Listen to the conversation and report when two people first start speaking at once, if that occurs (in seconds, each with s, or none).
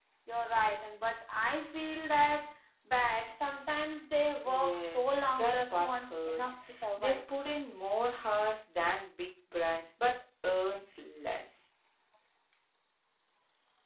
4.5 s